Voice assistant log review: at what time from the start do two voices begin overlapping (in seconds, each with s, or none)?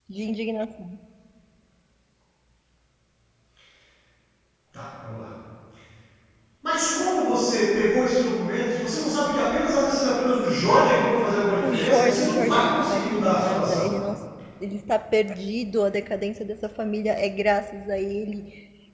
11.6 s